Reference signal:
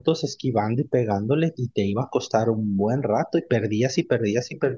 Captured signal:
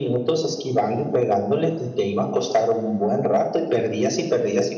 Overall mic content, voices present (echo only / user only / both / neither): both